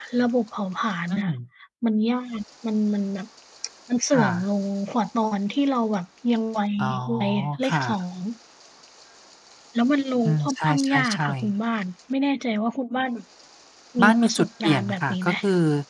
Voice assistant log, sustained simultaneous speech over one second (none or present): present